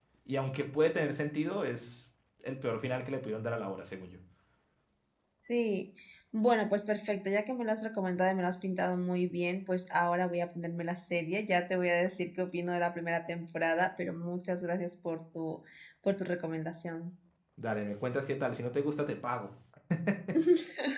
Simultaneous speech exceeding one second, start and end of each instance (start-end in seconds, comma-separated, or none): none